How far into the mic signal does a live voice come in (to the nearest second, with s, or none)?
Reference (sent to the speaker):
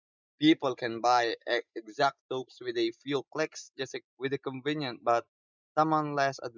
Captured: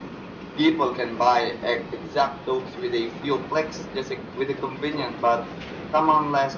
none